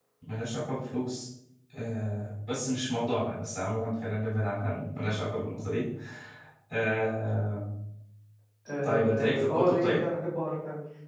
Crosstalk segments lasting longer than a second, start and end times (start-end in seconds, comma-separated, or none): 8.8-10.0